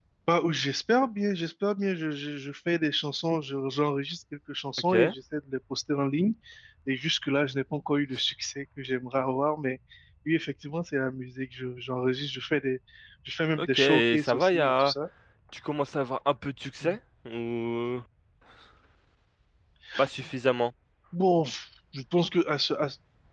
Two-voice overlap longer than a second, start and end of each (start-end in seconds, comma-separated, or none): 13.6-14.9